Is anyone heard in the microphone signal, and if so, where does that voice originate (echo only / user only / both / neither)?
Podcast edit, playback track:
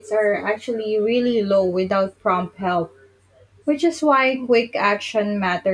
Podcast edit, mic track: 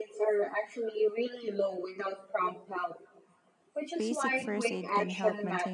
both